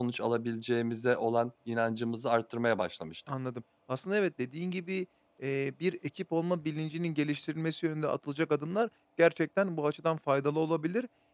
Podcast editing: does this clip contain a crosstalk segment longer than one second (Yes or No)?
No